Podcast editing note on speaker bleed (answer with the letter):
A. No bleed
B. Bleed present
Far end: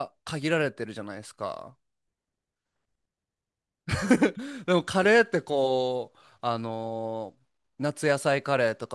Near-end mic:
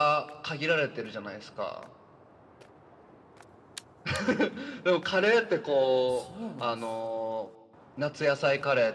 B